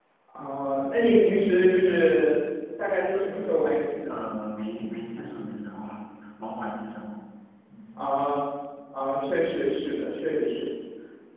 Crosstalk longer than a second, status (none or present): none